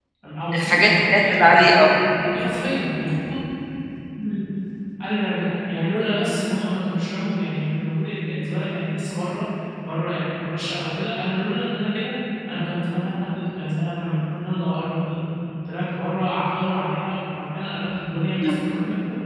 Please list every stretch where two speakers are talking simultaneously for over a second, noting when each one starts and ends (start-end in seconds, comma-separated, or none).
0.6-1.9